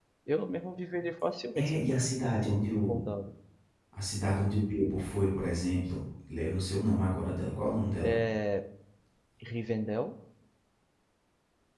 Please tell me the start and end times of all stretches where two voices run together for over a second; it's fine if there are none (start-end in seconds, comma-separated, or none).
none